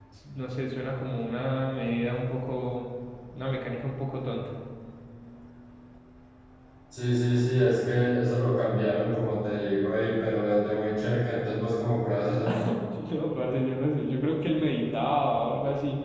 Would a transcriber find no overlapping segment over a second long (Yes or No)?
Yes